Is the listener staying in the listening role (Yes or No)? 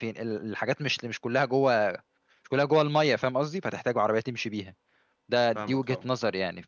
Yes